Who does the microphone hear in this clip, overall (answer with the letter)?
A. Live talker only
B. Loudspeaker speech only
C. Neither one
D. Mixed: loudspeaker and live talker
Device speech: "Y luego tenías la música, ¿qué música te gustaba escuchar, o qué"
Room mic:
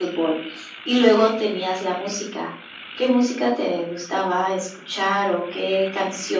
B